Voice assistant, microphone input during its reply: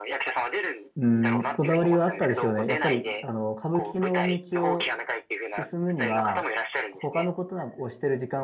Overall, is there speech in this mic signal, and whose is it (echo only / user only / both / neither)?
both